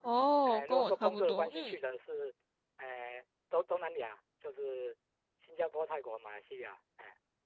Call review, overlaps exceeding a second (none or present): present